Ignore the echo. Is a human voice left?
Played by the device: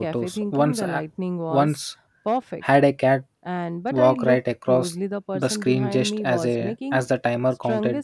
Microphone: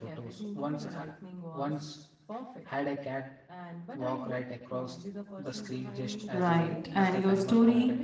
Yes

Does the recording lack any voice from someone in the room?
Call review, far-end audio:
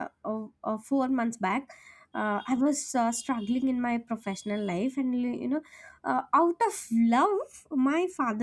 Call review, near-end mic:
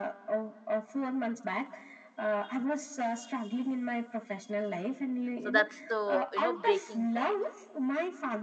No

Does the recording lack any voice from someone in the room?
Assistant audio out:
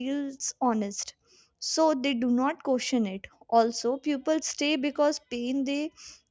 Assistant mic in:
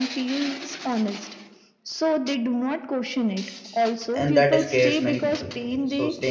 No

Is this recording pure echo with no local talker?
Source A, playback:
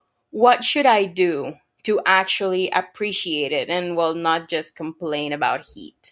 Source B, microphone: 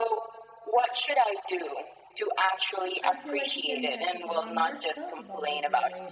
No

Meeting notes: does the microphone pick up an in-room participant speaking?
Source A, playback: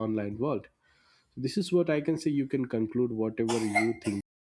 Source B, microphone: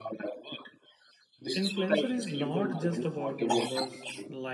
Yes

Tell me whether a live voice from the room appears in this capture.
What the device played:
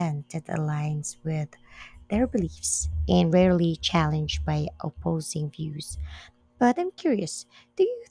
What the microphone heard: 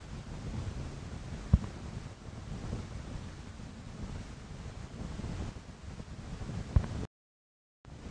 No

